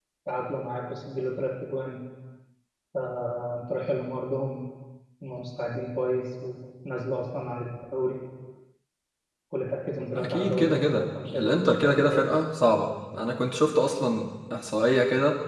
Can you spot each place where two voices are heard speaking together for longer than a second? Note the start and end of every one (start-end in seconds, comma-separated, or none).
10.2-12.4